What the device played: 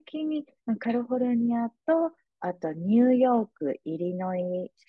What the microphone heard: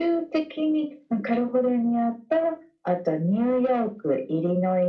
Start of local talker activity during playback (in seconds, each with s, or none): none